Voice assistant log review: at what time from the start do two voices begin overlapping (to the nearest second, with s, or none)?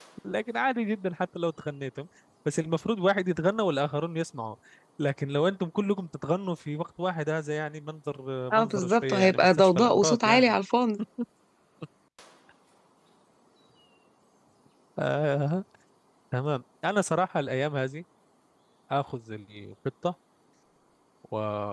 9 s